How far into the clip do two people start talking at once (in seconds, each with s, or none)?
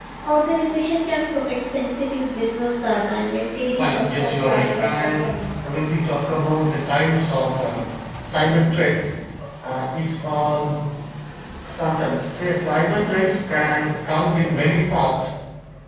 3.8 s